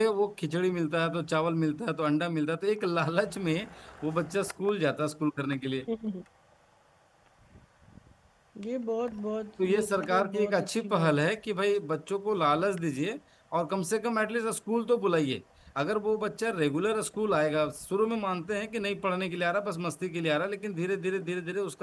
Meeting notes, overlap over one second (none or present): present